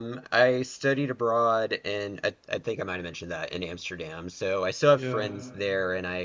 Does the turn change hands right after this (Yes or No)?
No